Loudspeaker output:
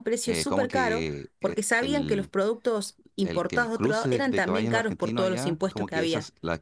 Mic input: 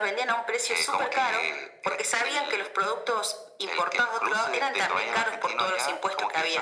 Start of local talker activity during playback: none

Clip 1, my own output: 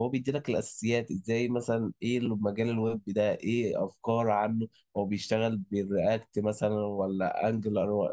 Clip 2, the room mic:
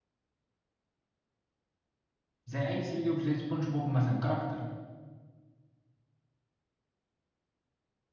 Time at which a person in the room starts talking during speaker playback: 2 s

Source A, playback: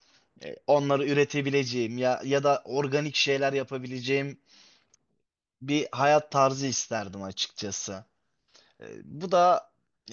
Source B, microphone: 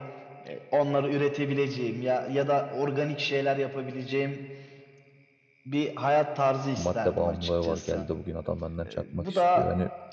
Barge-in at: 7 s

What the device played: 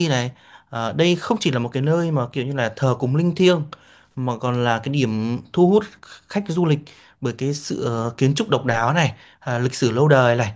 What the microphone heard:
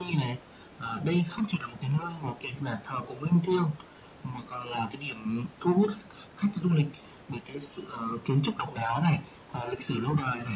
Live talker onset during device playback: none

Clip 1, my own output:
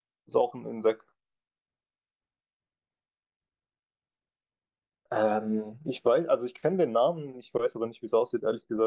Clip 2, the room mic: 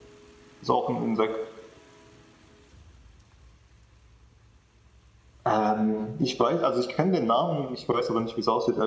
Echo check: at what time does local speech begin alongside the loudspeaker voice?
none

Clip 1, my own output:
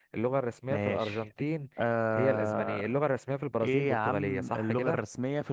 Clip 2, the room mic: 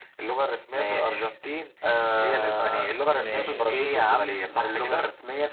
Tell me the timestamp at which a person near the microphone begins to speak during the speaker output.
3 s

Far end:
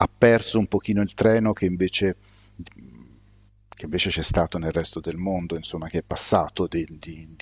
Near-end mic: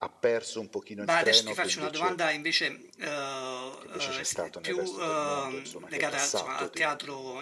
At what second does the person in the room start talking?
1 s

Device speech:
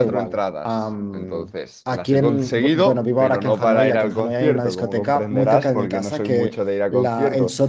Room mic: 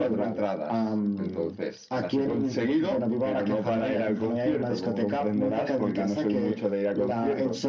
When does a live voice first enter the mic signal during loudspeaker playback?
none

